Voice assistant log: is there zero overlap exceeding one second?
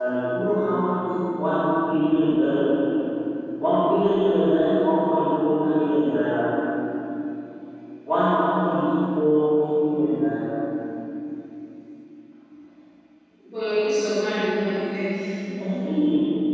Yes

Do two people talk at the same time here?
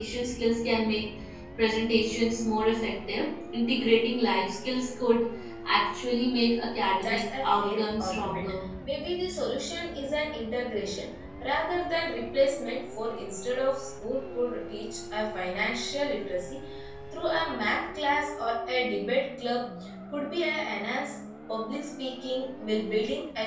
Yes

